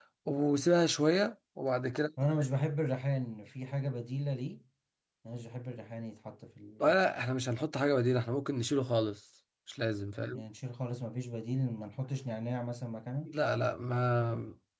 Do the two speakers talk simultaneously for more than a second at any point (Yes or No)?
No